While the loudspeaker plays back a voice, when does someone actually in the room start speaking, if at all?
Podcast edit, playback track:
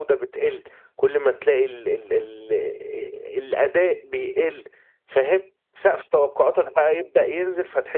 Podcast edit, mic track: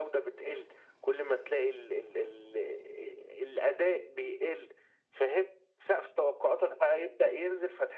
none

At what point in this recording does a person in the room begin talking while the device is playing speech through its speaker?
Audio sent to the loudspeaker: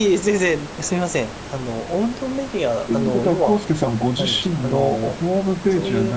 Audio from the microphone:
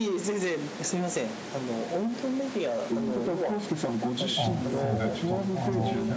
4.3 s

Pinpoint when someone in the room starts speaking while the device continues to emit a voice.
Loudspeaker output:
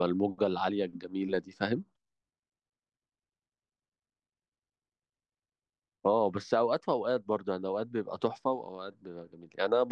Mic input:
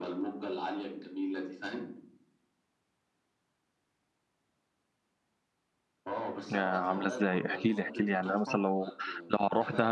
6.5 s

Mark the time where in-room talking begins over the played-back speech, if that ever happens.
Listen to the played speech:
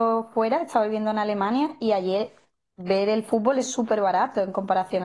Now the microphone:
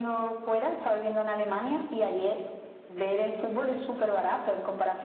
none

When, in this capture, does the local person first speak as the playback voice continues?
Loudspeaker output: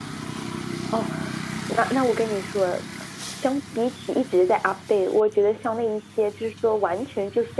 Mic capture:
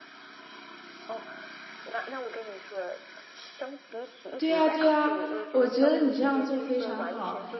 4.4 s

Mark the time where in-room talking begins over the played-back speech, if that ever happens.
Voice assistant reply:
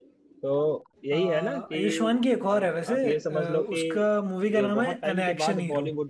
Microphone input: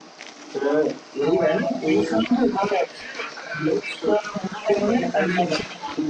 none

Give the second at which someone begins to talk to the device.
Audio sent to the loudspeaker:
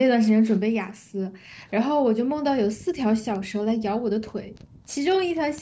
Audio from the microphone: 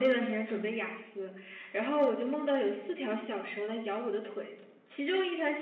none

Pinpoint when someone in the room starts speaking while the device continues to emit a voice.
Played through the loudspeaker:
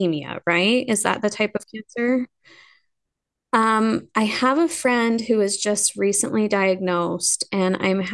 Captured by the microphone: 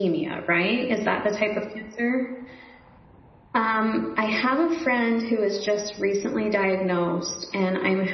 none

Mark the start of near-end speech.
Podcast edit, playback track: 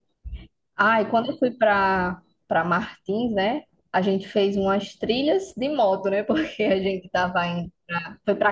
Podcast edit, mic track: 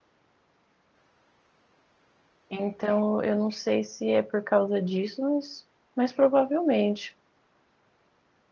2.5 s

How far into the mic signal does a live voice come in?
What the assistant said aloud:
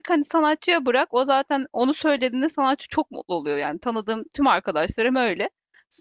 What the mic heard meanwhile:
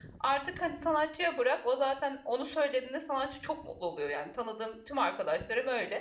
none

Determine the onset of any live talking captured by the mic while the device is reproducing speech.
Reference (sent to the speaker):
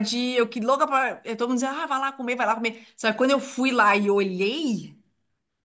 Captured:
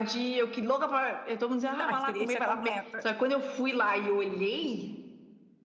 1.9 s

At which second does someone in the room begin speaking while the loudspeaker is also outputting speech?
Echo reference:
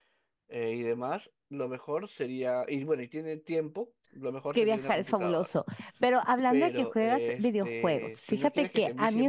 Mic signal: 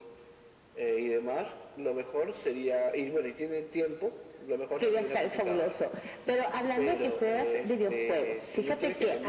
none

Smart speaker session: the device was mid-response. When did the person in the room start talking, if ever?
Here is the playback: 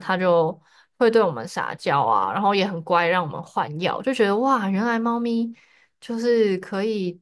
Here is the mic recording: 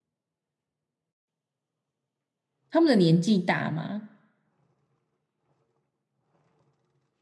2.7 s

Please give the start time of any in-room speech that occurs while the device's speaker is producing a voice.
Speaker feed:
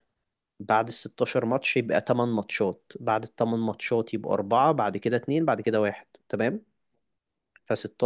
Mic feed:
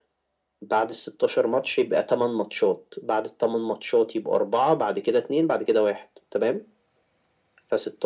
none

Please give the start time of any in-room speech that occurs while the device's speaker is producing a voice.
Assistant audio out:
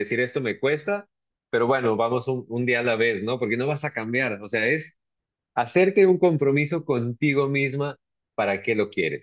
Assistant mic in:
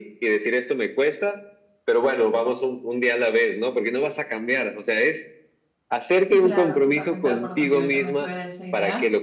6.3 s

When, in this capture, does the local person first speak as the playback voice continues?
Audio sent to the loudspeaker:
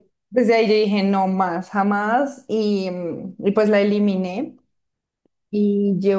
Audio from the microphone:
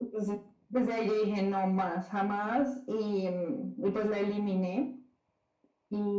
none

